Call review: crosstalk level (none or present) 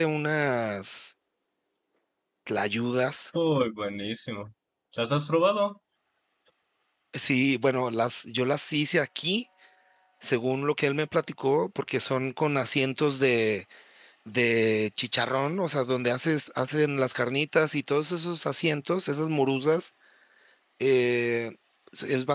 none